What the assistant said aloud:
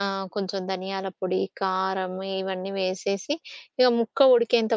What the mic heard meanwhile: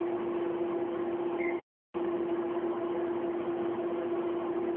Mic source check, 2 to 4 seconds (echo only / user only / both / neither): neither